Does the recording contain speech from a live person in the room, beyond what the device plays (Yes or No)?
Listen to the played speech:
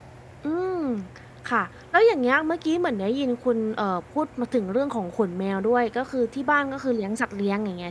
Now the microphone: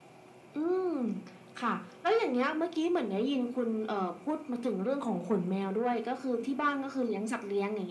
No